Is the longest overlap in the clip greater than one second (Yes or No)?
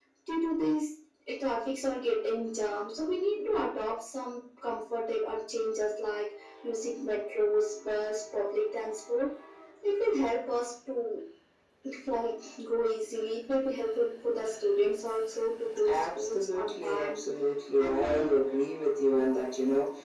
Yes